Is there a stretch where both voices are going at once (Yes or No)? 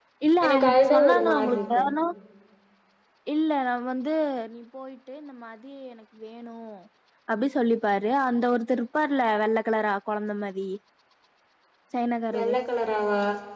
Yes